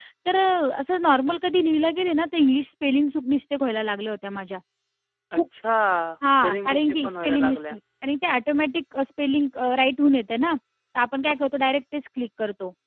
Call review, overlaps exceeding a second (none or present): present